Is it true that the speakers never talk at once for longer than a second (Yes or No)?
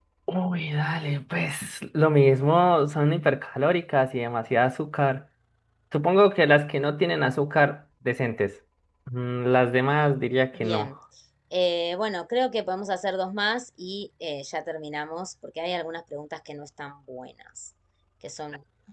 Yes